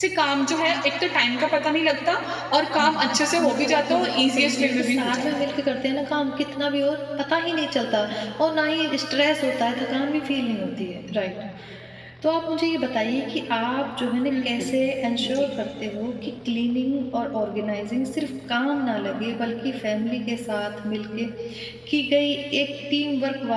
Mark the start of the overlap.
2.8 s

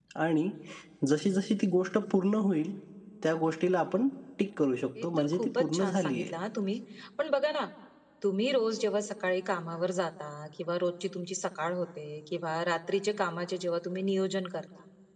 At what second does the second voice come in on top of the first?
5.0 s

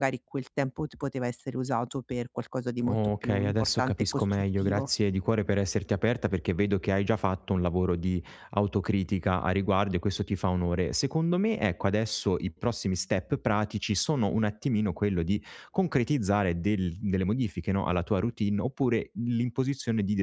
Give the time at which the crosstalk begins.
2.8 s

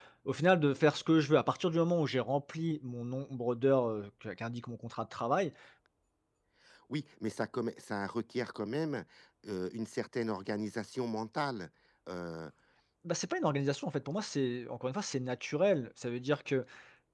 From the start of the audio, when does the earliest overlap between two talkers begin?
none

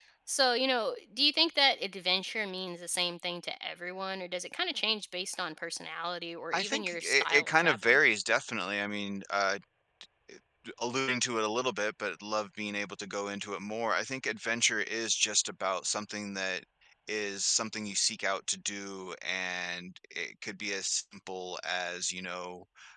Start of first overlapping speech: 6.5 s

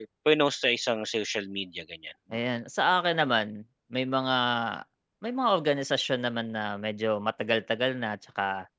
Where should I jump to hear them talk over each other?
none

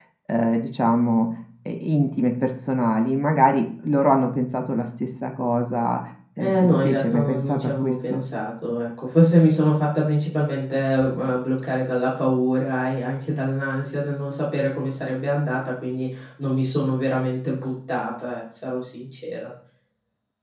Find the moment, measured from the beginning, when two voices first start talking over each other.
6.4 s

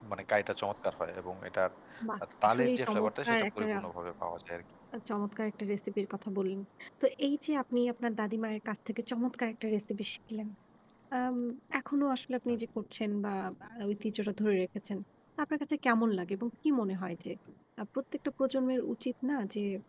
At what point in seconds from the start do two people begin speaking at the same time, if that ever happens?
2.4 s

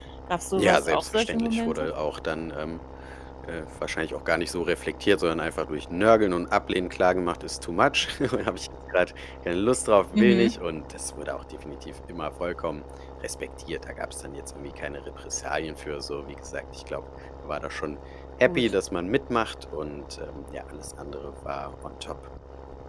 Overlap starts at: 0.6 s

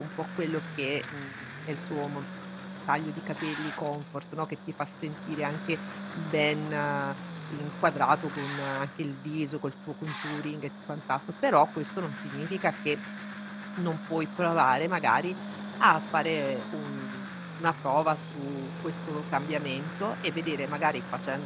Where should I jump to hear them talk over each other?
none

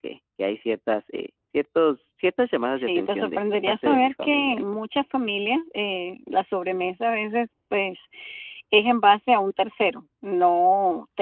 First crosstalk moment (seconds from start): 2.8 s

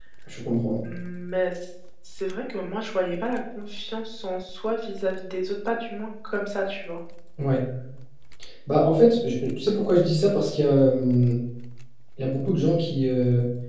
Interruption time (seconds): none

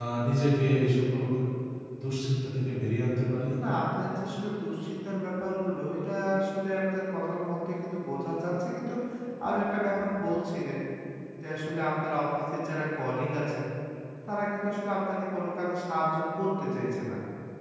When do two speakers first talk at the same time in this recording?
none

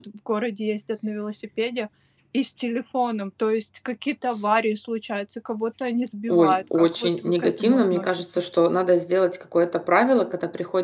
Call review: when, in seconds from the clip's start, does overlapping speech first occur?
6.3 s

